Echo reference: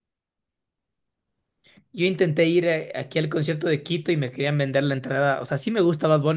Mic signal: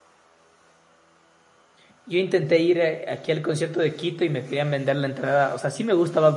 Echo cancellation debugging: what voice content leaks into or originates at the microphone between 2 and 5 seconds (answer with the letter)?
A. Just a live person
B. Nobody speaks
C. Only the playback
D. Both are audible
C